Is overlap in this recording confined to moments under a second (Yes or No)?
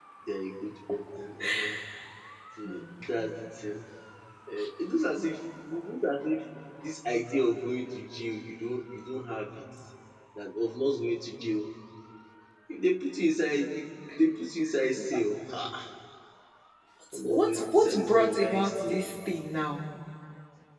No